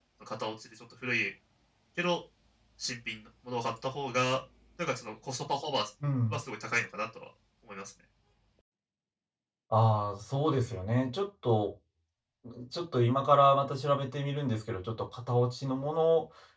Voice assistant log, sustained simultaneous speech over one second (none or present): none